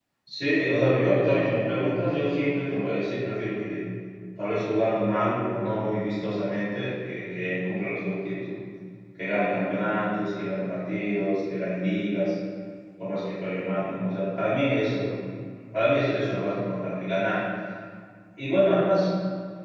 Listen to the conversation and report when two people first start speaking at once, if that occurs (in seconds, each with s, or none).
none